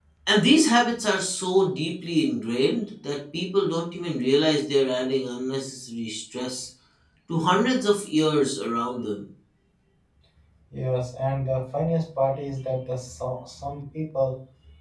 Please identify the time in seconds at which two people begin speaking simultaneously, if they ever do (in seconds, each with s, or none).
none